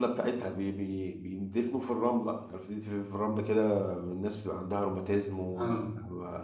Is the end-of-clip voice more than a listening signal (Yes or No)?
No